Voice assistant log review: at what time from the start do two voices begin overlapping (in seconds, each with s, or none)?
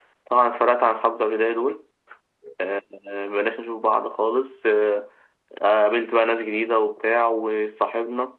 none